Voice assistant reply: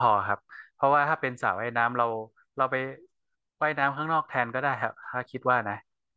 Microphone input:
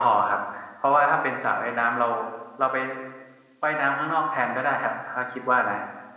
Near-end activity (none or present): none